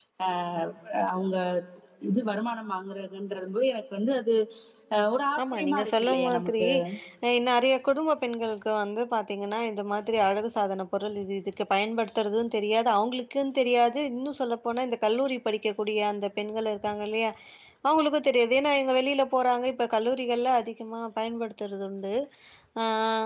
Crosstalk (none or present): present